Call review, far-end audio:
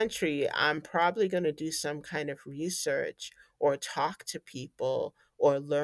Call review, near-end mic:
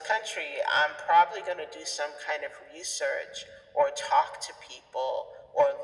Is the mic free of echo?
No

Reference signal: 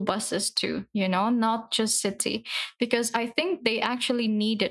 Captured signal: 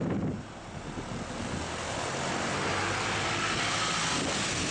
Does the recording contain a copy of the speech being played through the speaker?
No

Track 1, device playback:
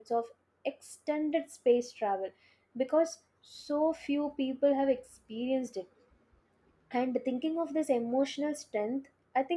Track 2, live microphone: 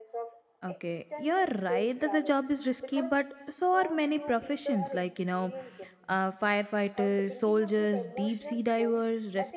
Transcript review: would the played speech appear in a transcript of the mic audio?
Yes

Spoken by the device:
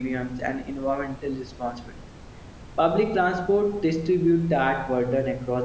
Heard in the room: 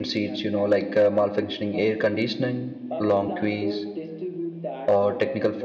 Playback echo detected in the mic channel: Yes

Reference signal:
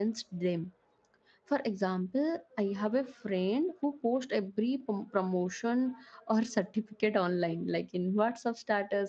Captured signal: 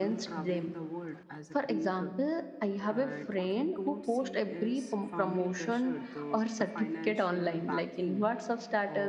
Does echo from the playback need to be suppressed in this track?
Yes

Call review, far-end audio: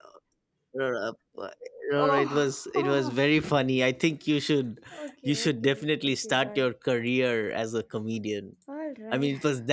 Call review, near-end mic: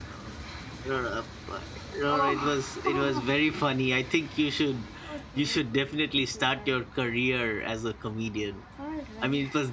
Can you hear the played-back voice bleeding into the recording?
Yes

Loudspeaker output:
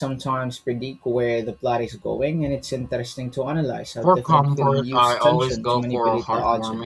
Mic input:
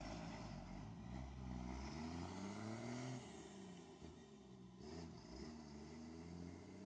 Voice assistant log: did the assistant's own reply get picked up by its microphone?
No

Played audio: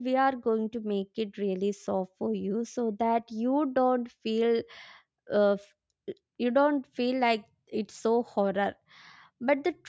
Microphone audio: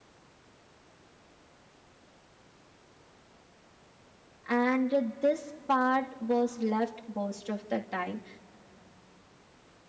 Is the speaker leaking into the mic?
No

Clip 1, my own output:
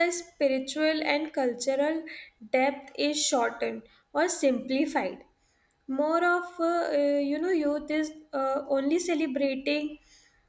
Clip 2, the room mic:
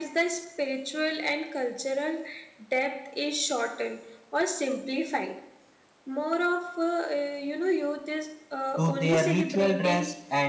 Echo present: Yes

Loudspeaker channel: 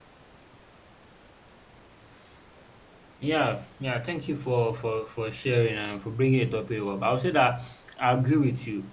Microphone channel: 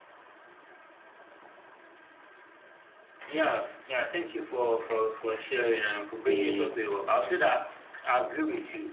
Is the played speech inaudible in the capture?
No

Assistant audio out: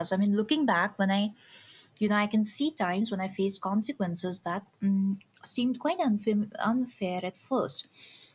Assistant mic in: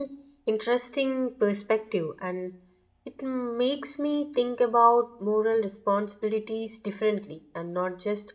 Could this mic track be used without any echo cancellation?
Yes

